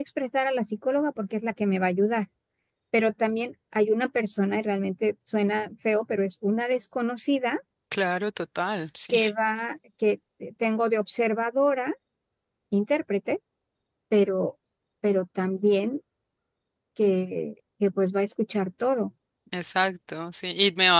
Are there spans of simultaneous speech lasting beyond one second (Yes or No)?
No